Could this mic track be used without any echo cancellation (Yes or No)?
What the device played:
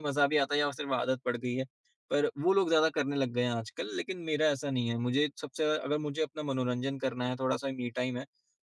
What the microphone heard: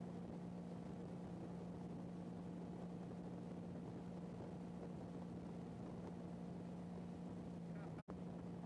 Yes